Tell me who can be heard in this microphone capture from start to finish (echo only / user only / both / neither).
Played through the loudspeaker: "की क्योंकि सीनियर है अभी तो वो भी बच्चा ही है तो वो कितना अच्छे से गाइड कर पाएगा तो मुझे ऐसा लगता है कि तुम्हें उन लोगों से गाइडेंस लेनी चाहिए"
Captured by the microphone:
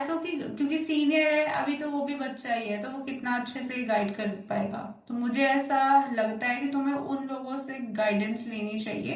echo only